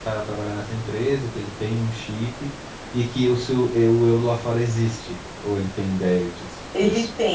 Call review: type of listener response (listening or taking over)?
taking over